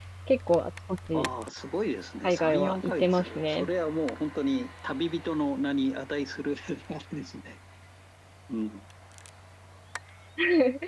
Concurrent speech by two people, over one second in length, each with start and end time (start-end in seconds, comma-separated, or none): 2.2-3.7